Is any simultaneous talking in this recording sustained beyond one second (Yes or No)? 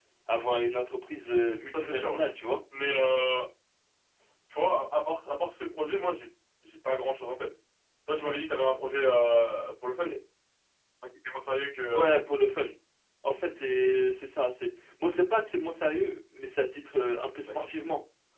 No